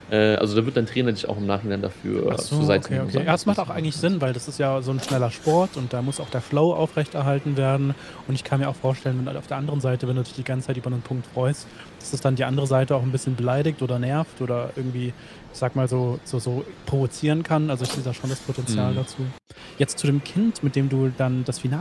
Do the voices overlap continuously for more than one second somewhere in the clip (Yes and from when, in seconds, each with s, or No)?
Yes, from 2.3 s